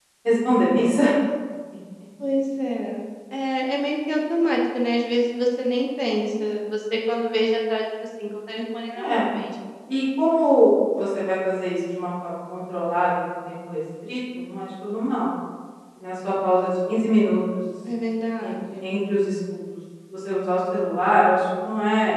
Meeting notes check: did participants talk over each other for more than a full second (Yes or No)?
No